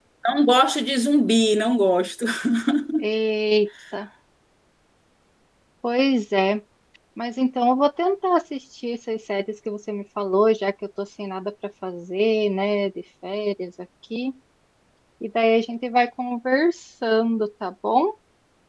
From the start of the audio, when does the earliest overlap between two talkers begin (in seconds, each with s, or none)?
none